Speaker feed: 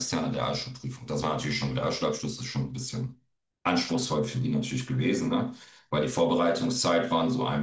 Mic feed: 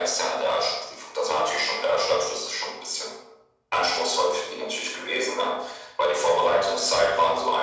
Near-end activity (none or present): none